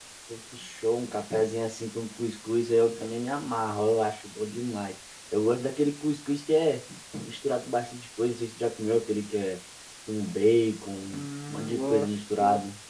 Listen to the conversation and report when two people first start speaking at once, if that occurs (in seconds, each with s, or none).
11.1 s